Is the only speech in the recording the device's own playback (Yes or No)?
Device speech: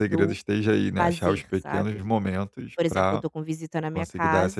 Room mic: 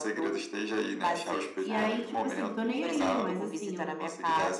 No